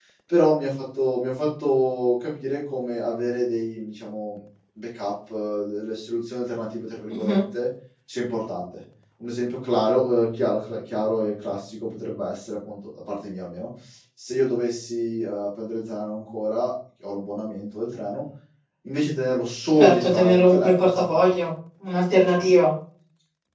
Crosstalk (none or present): present